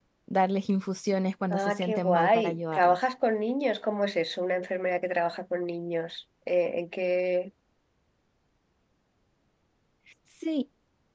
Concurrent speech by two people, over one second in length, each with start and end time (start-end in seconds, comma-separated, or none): 1.5-3.0